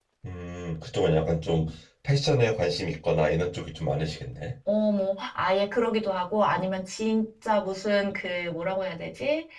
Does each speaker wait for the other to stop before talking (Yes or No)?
Yes